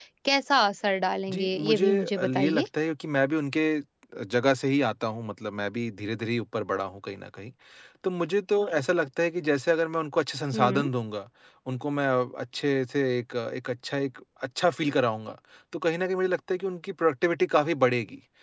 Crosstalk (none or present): present